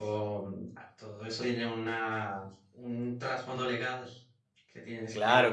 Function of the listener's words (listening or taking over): taking over